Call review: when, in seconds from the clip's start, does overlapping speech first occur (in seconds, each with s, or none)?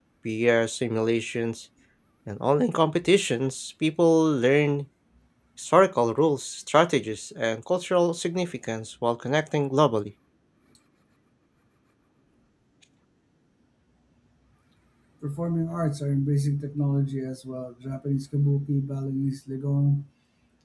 none